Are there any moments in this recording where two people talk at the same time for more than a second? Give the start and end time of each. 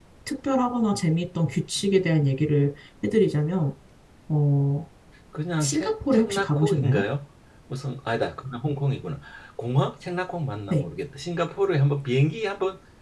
5.6-7.0

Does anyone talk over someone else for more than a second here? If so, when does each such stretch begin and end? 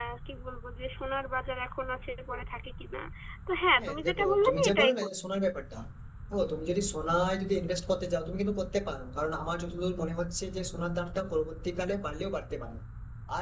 3.8-5.1

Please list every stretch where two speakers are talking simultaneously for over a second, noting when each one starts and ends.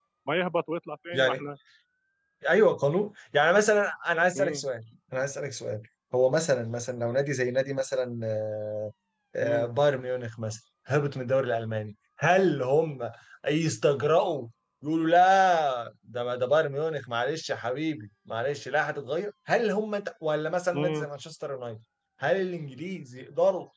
none

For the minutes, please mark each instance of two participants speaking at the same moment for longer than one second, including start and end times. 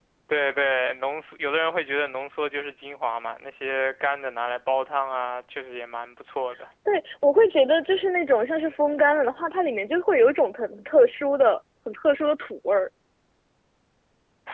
none

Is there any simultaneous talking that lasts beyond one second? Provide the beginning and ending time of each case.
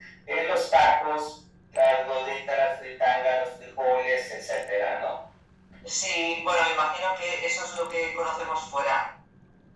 none

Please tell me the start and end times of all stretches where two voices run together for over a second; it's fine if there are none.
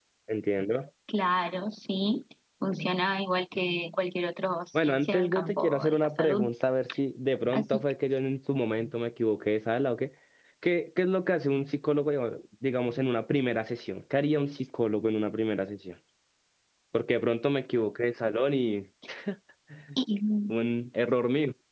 4.7-6.5

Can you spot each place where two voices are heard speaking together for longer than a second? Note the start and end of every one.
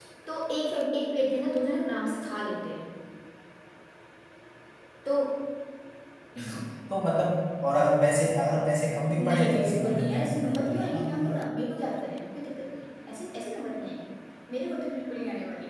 9.2-11.2

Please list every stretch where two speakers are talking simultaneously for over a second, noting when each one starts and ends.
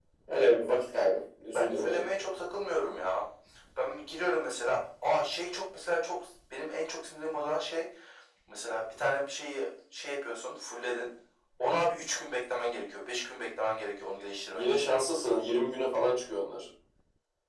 none

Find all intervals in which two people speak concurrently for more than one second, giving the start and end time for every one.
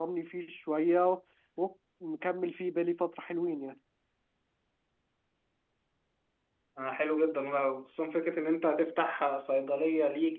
none

